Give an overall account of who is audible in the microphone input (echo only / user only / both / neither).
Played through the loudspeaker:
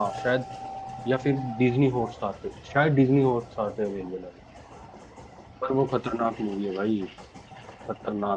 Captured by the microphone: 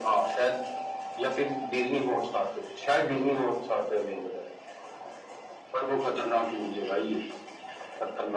echo only